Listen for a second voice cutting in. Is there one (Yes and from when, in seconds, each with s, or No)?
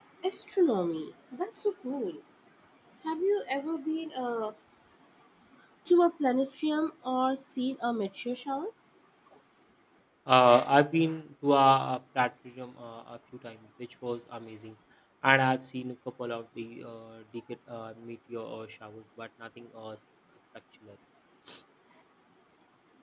No